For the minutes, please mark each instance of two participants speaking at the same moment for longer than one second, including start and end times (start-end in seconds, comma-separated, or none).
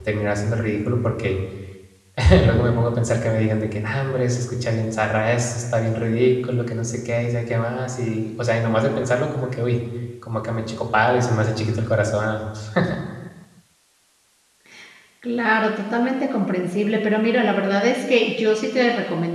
none